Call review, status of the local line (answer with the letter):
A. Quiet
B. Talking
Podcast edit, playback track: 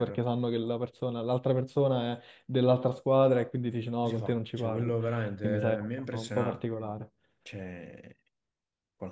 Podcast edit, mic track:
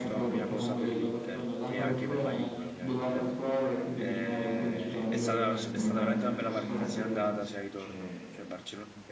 B